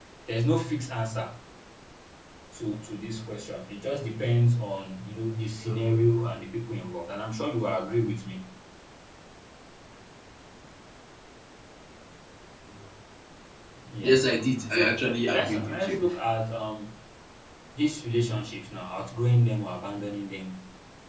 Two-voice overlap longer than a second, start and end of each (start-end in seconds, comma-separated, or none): 14.7-16.0